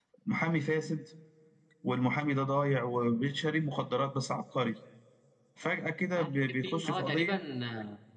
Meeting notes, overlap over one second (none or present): present